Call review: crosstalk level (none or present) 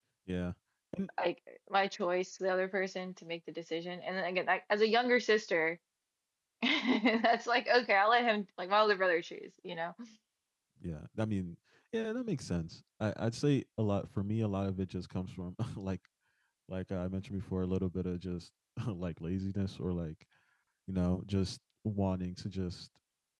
none